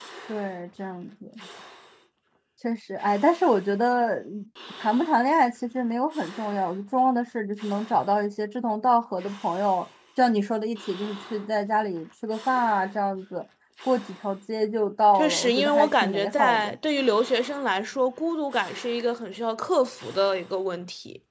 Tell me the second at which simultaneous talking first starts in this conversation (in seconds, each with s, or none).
15.2 s